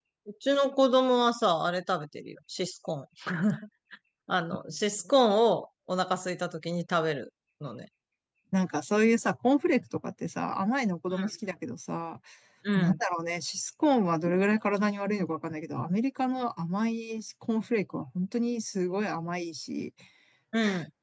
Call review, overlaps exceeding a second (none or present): none